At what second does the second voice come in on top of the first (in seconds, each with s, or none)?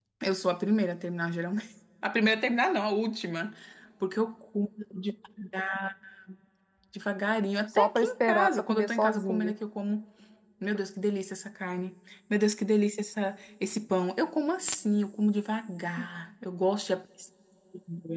7.7 s